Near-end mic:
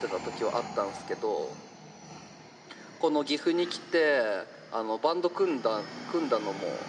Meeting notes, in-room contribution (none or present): none